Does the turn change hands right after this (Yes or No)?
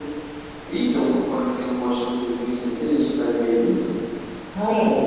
No